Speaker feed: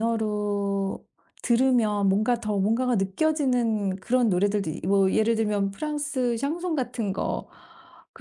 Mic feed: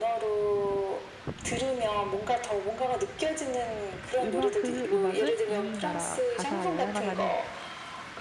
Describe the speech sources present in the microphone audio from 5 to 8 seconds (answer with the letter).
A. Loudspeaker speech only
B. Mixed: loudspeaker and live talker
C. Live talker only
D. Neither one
B